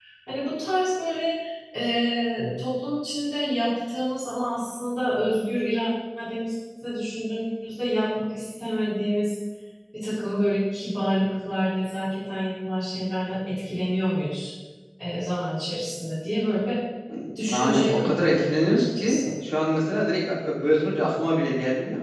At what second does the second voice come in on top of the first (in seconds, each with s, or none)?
17.5 s